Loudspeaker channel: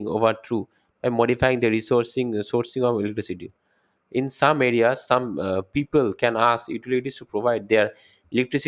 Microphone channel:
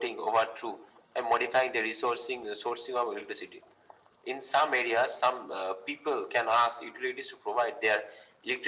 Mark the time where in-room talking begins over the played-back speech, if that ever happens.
none

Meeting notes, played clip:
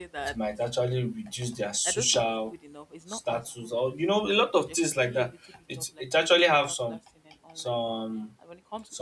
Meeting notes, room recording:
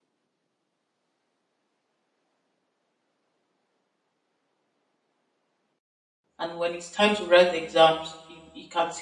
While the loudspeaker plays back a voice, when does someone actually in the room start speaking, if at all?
6.4 s

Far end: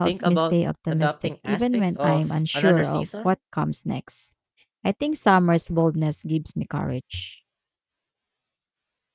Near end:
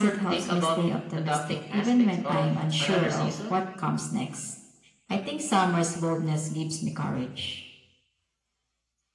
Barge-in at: none

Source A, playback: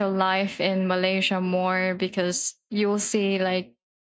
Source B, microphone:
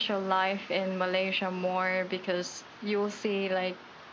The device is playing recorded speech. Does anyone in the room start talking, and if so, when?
none

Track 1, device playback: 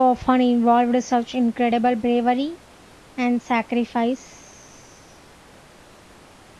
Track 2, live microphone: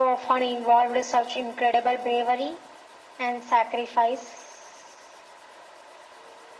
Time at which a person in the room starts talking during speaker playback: none

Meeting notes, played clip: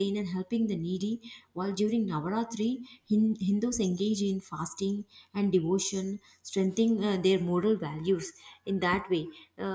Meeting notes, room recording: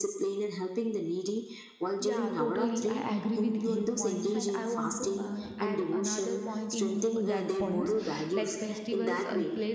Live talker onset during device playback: 2.0 s

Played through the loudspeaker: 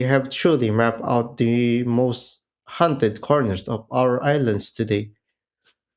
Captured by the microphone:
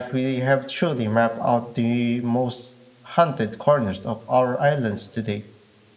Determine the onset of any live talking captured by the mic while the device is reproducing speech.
none

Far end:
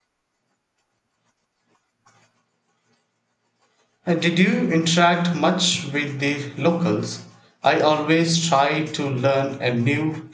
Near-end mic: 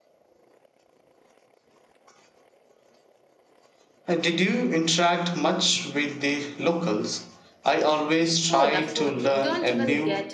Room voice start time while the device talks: 8.5 s

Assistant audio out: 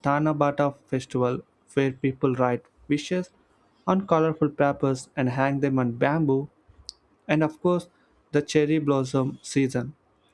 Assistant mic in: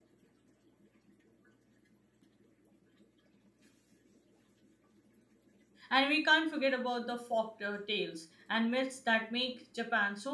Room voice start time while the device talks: 5.9 s

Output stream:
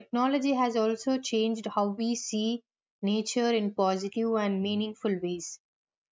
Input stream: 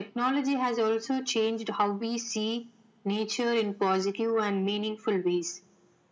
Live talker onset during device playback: none

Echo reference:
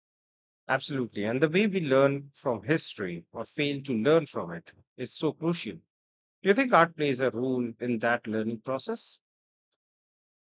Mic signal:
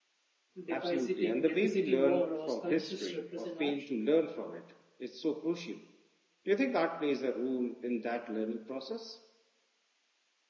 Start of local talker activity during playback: 0.6 s

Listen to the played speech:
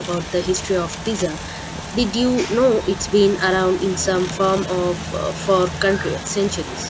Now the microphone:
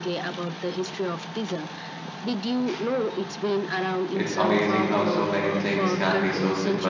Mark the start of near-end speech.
4.1 s

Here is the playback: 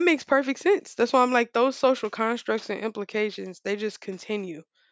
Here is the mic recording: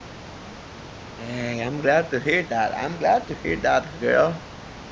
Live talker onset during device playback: 1.2 s

